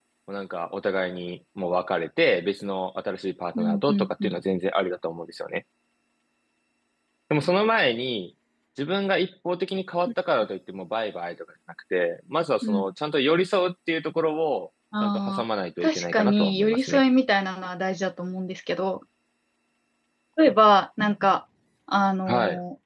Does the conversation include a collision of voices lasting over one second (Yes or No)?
Yes